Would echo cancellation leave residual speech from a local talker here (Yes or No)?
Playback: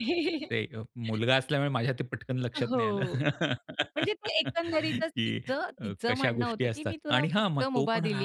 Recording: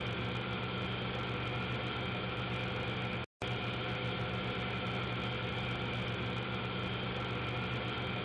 No